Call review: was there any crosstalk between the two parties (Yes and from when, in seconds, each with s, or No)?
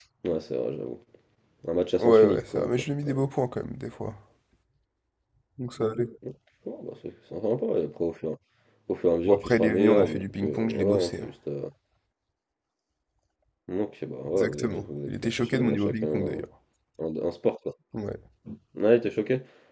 Yes, from 2.0 s